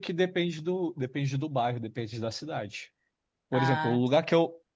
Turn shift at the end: No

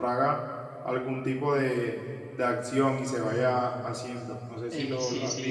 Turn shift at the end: Yes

